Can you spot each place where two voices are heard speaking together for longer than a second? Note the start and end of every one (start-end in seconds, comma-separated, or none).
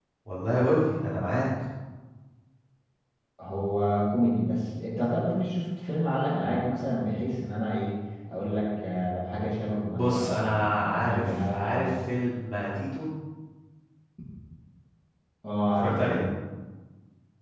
9.9-11.9